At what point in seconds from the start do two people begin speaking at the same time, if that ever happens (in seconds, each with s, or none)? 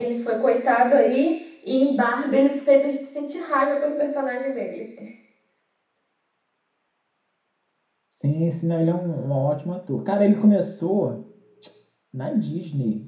none